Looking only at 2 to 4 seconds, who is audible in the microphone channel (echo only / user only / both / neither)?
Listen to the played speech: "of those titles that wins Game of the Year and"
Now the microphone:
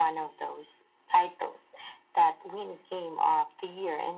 echo only